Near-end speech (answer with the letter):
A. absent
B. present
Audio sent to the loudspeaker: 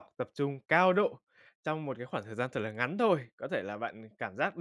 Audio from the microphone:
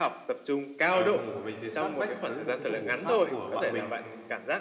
B